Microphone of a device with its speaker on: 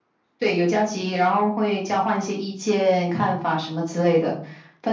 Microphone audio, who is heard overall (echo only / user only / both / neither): echo only